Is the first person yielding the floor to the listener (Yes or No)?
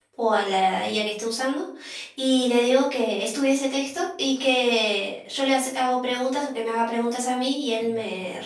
No